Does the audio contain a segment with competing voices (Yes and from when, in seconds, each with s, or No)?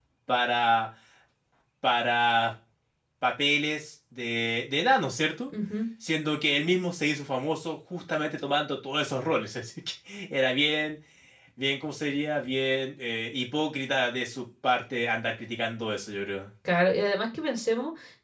No